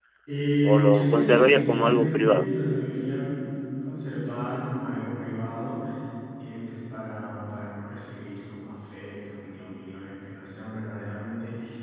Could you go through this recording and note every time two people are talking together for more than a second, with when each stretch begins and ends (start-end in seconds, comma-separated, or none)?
0.6-2.5